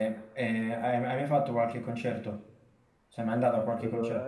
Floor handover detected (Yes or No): Yes